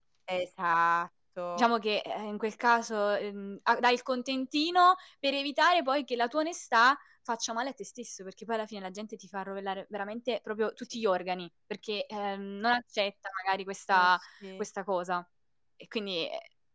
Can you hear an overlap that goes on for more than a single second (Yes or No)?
No